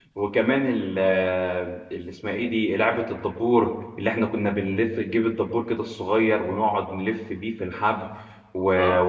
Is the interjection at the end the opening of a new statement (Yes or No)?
No